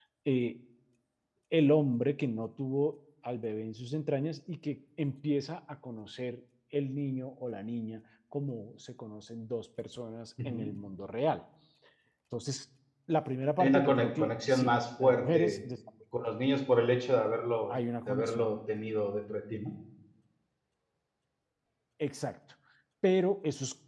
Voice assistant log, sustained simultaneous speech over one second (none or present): present